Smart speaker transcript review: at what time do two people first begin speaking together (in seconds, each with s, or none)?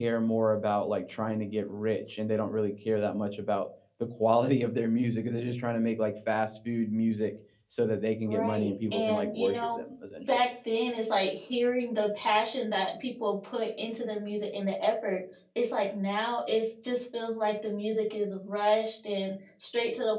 8.2 s